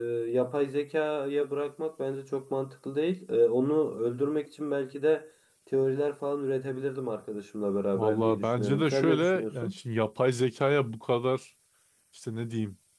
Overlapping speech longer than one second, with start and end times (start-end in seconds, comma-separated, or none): 8.0-9.8